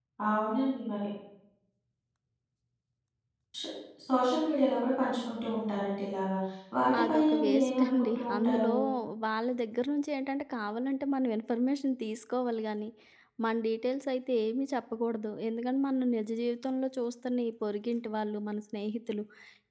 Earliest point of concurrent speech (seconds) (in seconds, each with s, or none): 7.0 s